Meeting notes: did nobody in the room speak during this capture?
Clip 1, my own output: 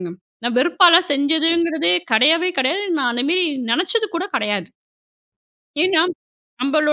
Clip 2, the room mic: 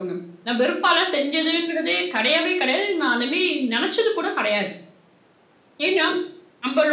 Yes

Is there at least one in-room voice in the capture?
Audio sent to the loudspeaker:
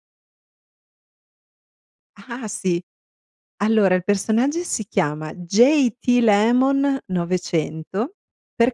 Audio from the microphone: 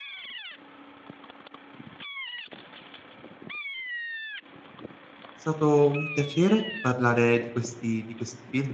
Yes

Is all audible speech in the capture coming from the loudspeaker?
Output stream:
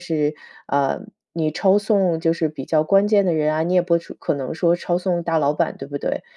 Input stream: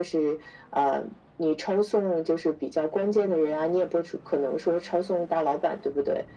Yes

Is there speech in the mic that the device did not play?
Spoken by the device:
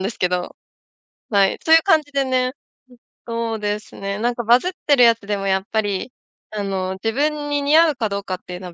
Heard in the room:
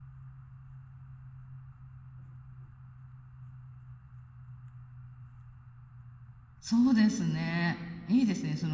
Yes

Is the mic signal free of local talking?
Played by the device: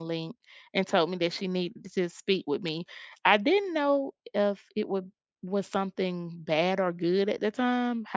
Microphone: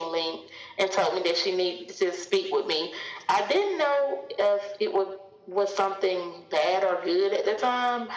Yes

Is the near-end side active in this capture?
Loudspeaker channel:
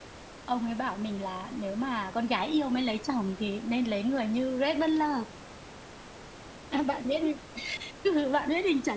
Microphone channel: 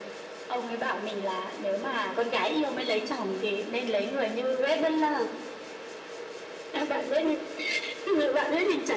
No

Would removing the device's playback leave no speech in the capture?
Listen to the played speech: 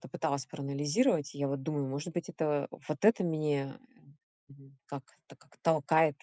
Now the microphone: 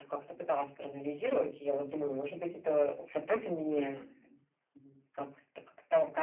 Yes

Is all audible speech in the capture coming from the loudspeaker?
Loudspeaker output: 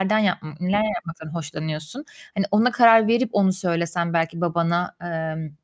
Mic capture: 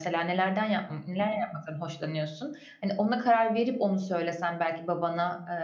Yes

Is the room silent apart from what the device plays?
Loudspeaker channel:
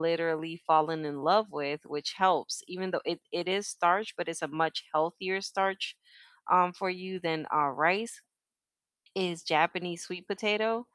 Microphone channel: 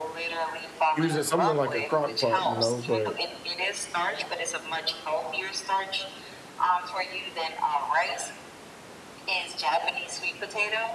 No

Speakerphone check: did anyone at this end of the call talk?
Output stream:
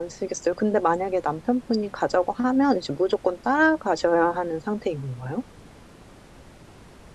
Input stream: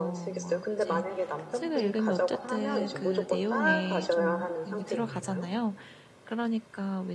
Yes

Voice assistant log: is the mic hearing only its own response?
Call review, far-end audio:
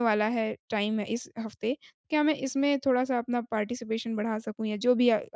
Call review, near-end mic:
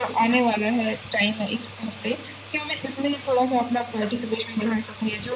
Yes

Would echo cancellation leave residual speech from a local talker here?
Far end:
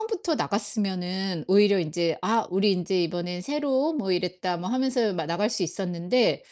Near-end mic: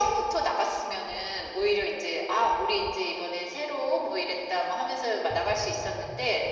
No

